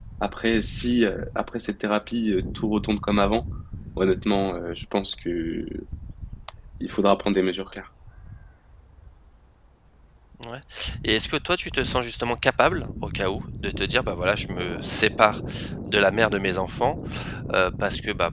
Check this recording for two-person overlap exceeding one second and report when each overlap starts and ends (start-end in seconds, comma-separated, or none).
none